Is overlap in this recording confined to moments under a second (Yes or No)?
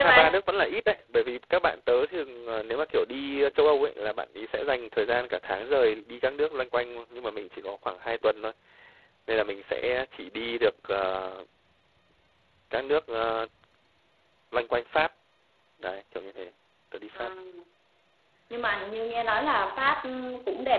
Yes